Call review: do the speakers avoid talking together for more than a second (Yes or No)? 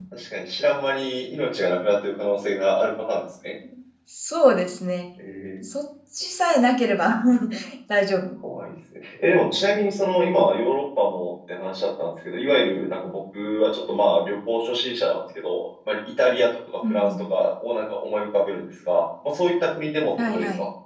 Yes